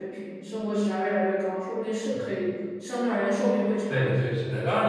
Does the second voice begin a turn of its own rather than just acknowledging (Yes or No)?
Yes